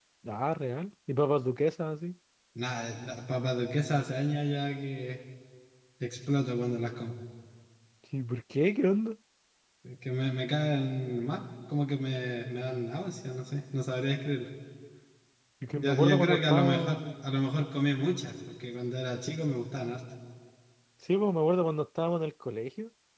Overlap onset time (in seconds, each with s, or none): 15.8 s